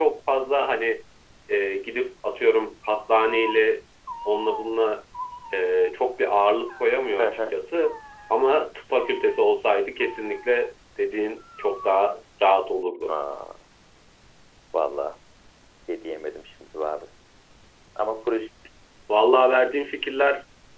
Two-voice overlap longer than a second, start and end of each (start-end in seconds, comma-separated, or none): none